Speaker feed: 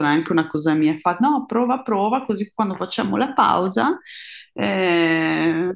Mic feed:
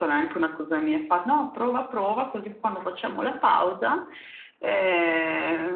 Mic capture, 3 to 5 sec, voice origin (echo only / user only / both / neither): echo only